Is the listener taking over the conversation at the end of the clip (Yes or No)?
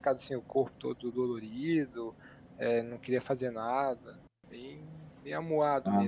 Yes